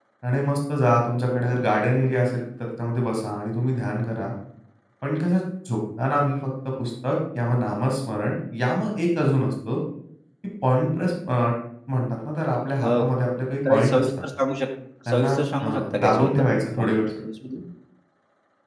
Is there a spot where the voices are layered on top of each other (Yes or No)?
Yes